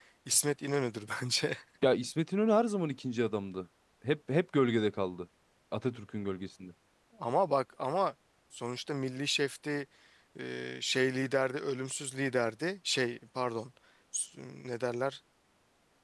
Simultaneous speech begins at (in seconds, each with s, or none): none